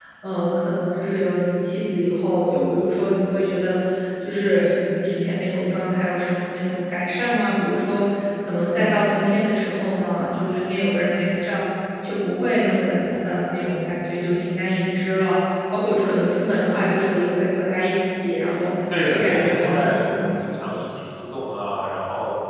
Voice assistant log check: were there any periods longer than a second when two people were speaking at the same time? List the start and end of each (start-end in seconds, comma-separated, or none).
18.9-20.3